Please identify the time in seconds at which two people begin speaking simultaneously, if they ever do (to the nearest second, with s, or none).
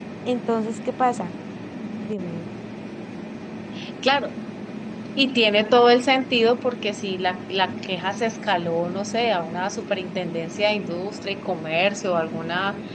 none